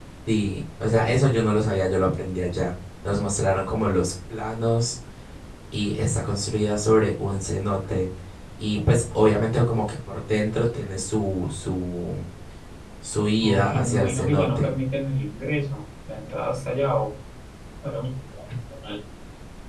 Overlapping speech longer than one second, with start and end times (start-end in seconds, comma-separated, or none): 13.4-14.7